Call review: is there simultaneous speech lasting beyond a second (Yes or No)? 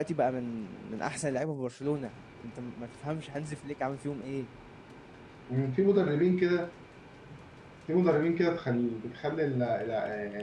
No